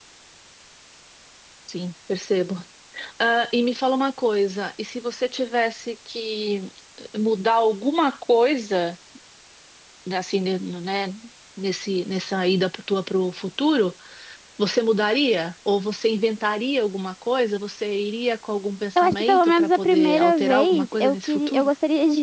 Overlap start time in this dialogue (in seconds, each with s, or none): 19.0 s